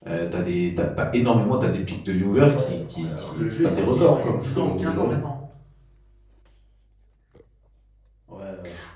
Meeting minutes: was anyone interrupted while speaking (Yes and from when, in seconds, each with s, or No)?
Yes, from 2.3 s